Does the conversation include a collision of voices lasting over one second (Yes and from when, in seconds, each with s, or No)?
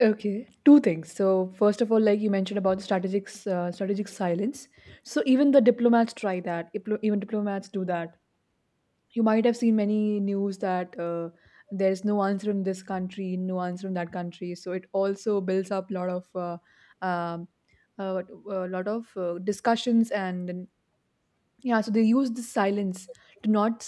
No